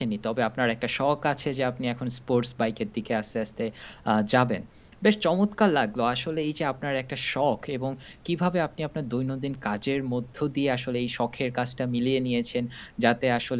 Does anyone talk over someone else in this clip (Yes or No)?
No